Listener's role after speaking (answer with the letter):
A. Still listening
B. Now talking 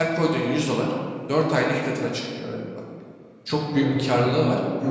B